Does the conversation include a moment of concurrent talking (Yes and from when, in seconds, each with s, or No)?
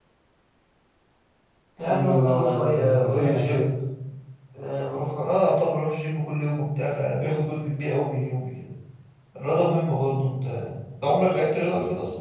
Yes, from 1.8 s